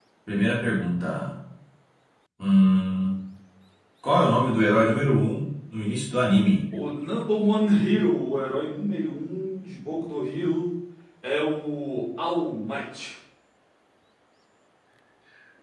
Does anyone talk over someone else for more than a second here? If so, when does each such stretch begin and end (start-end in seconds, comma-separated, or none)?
none